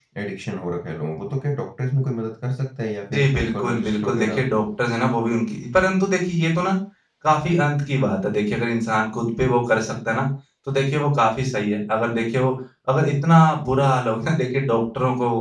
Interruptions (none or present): present